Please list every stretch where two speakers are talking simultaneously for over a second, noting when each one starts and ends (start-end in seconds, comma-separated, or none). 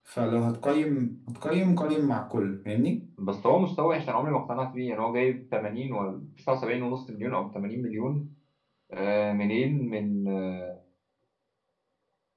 none